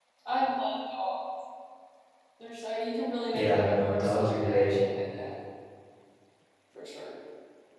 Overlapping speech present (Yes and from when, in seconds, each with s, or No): Yes, from 3.3 s